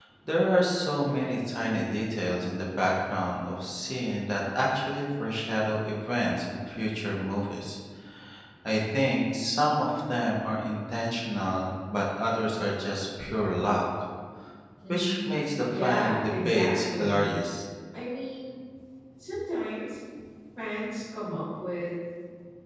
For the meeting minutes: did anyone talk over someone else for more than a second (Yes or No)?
Yes